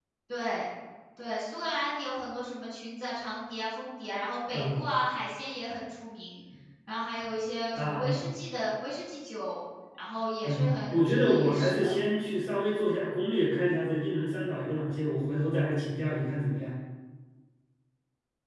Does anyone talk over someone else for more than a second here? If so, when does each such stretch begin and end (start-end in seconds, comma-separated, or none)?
10.4-12.0